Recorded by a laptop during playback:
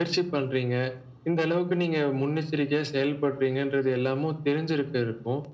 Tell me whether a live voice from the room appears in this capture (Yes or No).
No